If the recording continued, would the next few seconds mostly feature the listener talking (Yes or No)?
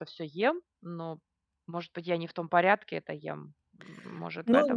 Yes